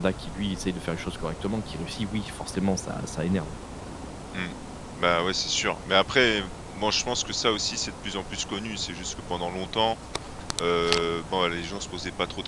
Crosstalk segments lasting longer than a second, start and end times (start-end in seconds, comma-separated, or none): none